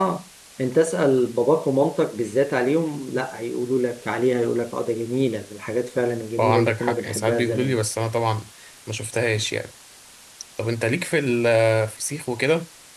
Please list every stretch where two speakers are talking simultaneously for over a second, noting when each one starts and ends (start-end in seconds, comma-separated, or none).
6.4-7.8